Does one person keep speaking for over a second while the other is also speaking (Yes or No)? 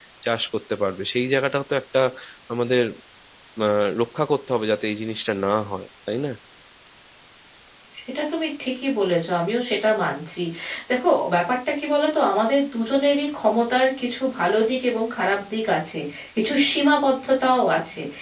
No